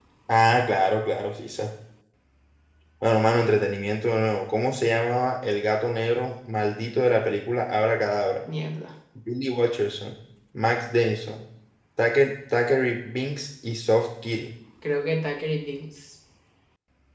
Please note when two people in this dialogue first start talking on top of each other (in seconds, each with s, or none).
none